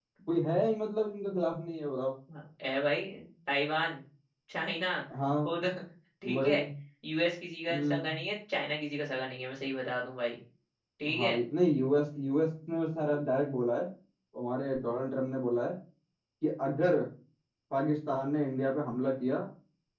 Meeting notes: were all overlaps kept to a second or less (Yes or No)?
Yes